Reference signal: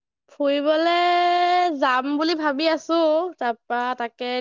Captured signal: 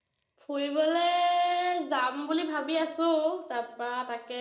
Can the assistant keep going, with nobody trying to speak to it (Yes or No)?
Yes